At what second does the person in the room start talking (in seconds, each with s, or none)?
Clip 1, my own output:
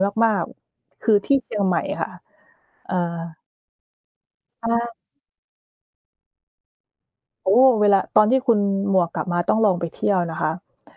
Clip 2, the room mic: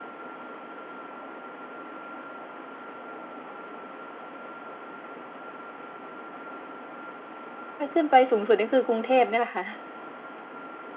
7.8 s